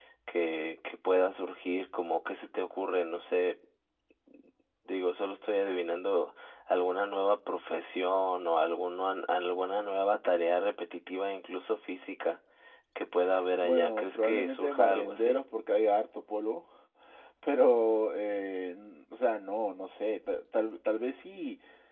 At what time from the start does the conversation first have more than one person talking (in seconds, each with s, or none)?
13.6 s